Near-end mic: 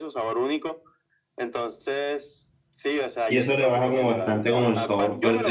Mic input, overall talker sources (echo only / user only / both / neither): both